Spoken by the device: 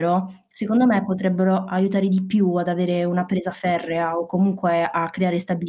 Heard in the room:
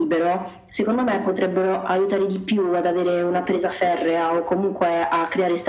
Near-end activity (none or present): none